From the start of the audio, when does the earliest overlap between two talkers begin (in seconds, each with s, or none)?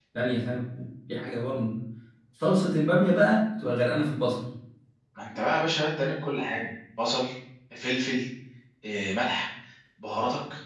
none